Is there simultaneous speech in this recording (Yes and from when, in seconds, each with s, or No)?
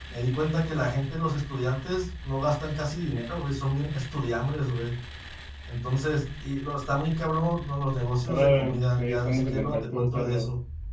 Yes, from 8.3 s